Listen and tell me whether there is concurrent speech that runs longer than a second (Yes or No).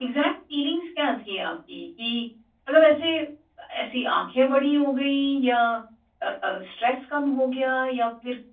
No